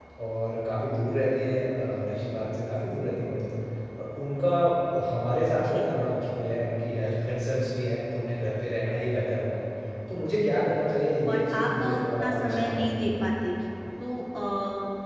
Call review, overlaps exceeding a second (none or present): present